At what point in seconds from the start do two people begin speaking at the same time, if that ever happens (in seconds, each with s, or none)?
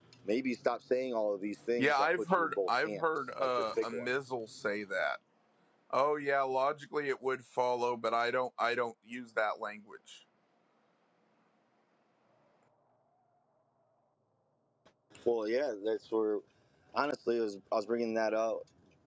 1.8 s